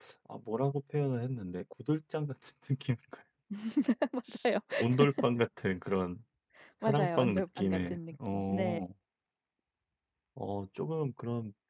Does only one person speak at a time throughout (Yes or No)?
No